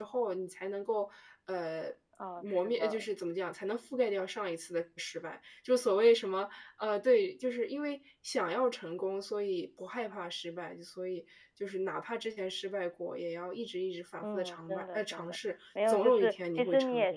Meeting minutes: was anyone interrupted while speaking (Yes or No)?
Yes